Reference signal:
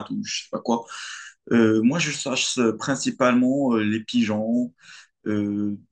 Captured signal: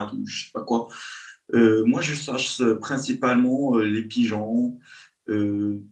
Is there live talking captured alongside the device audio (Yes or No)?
No